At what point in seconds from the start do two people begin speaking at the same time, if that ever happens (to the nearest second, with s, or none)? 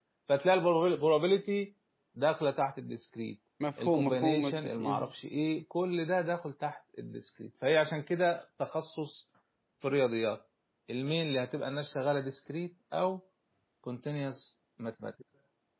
4 s